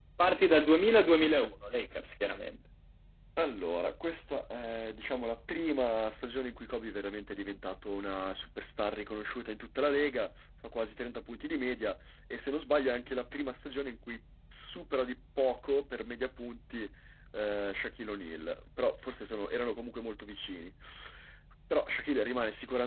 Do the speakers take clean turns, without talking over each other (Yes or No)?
Yes